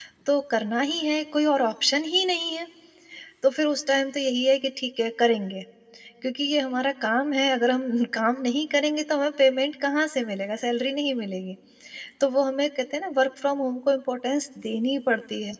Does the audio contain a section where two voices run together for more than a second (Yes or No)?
No